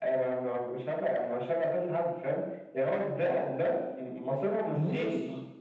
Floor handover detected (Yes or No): Yes